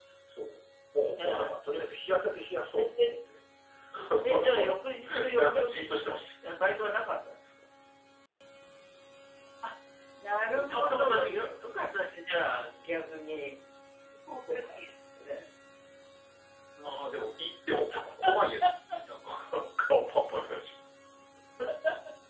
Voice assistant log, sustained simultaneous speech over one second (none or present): present